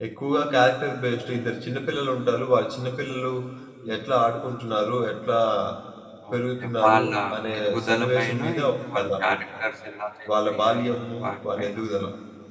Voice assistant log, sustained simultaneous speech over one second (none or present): present